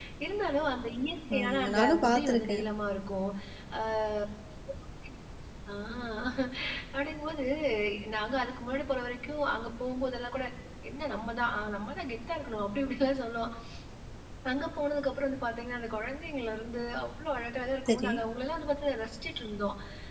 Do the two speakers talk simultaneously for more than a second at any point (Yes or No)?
Yes